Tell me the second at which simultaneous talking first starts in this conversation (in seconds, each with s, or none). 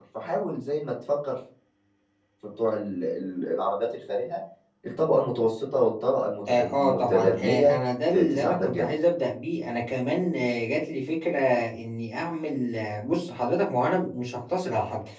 6.5 s